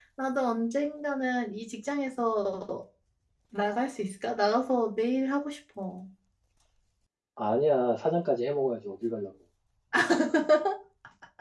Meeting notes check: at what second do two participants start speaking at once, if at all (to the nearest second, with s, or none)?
none